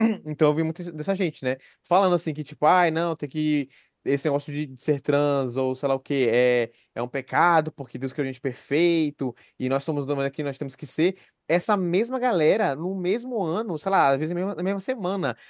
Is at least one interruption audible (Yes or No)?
No